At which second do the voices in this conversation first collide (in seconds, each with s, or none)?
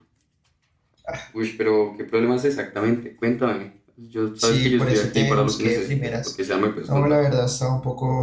4.4 s